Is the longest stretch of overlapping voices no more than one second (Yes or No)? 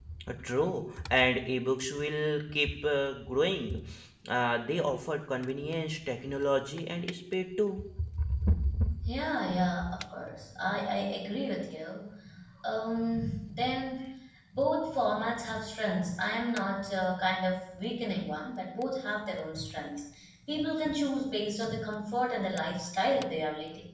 Yes